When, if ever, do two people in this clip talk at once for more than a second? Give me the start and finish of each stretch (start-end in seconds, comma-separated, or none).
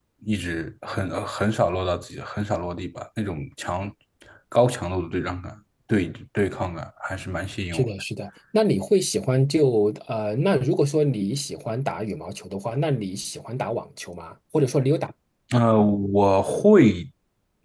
none